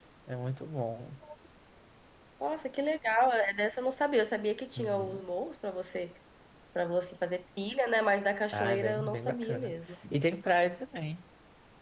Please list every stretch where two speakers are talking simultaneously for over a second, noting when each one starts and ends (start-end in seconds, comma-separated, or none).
8.5-9.7